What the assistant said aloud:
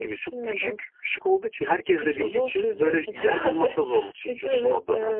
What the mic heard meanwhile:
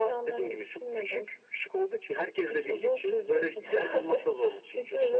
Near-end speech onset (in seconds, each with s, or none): none